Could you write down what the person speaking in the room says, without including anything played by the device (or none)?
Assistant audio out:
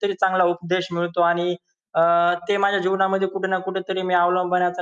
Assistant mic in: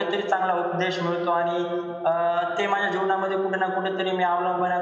none